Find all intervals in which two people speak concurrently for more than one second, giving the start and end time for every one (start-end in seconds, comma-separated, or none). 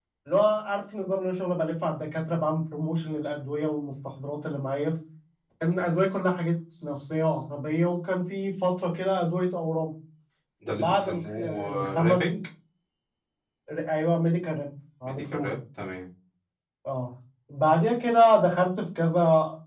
10.7-12.3